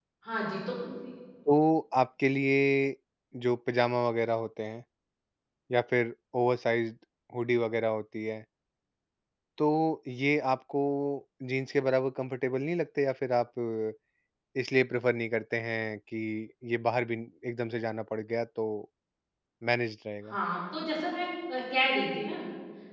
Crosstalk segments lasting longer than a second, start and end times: none

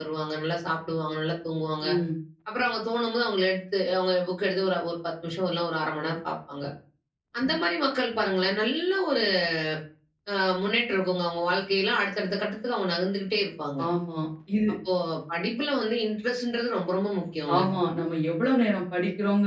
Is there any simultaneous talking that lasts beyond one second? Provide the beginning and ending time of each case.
none

